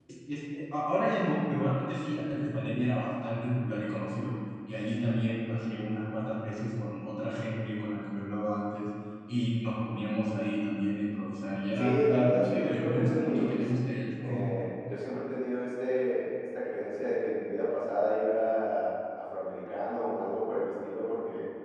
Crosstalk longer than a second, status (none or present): present